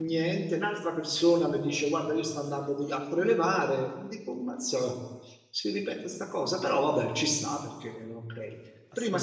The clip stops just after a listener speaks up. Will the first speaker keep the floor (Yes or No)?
Yes